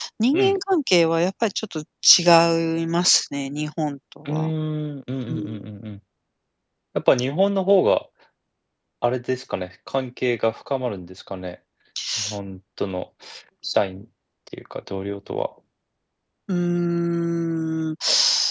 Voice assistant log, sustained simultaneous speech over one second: none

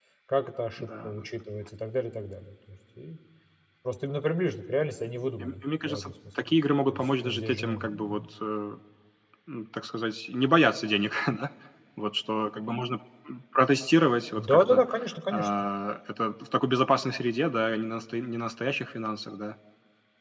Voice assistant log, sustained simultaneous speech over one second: present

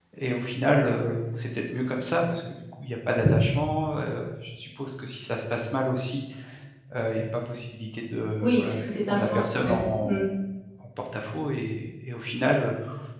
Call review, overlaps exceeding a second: present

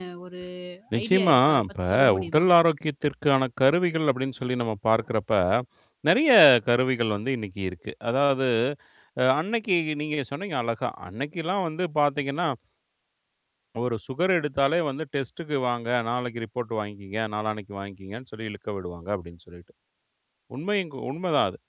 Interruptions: present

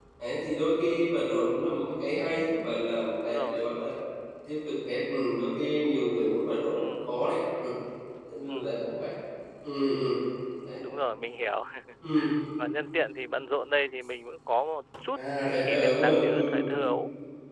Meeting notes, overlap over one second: present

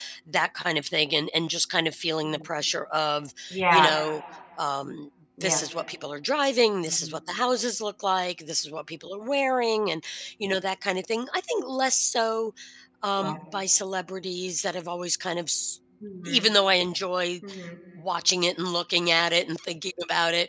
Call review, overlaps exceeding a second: none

